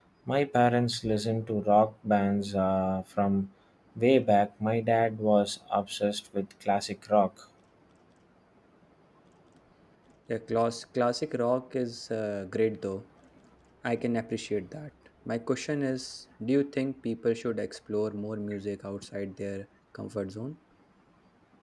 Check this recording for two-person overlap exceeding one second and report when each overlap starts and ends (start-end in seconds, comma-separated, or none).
none